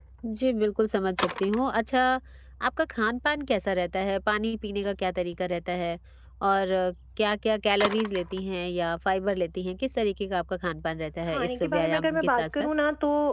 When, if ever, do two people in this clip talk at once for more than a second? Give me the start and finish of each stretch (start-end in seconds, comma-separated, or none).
11.3-12.7